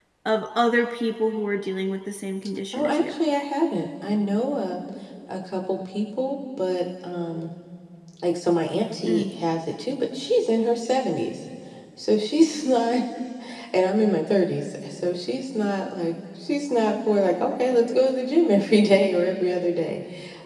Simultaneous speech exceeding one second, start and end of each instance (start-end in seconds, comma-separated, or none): none